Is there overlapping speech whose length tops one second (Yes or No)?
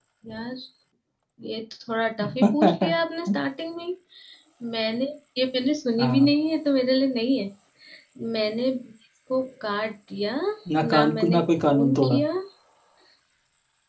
Yes